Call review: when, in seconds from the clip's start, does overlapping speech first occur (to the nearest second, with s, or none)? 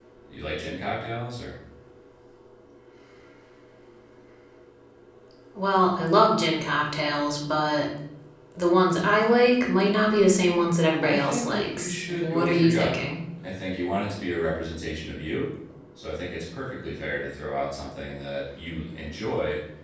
11 s